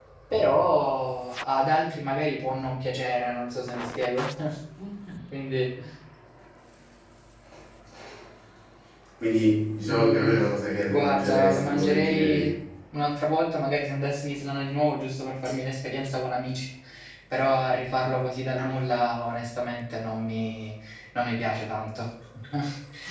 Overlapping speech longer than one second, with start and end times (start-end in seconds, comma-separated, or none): 10.9-12.5